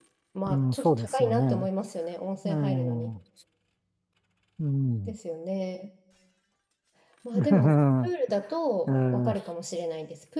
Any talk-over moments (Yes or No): Yes